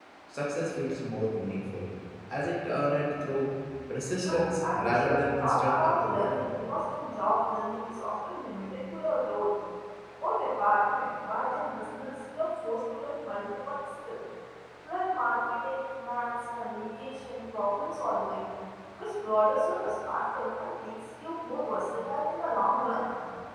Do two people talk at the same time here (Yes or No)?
Yes